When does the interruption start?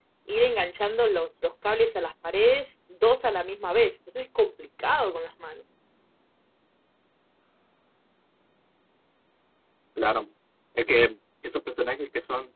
none

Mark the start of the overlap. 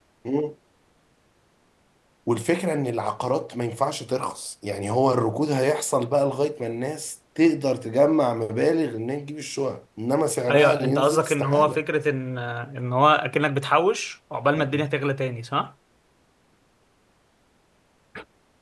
10.5 s

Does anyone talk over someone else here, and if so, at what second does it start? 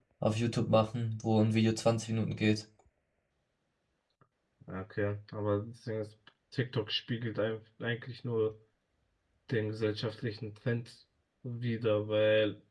none

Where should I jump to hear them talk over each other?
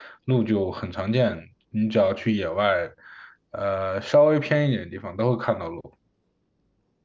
none

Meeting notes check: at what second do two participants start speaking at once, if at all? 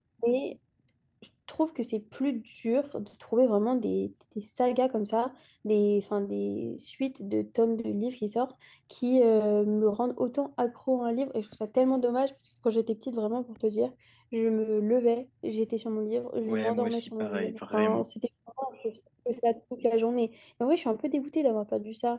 16.4 s

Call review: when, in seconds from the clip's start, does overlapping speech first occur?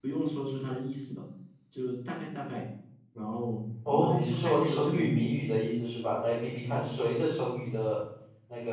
3.9 s

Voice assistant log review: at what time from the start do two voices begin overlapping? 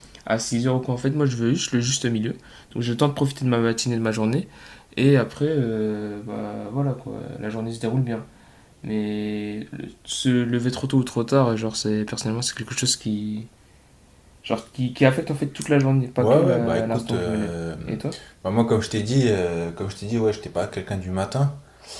16.2 s

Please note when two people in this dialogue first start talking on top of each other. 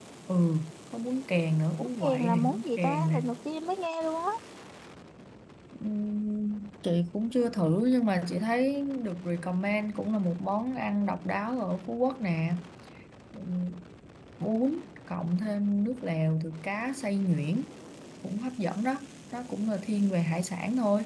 1.8 s

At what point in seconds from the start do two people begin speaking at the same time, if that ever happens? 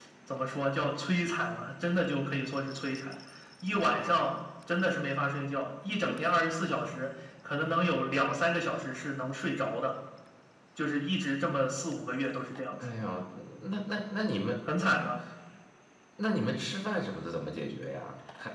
none

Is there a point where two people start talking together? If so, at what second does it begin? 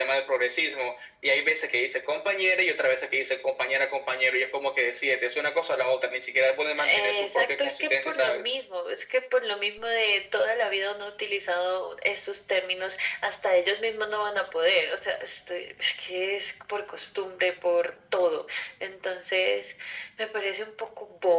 6.8 s

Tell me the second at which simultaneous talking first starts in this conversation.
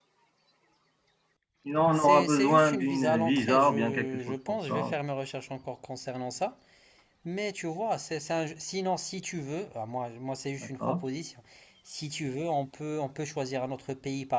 1.9 s

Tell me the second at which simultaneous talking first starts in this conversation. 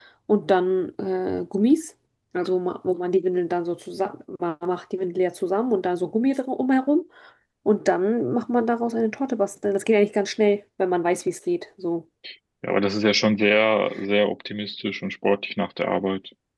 none

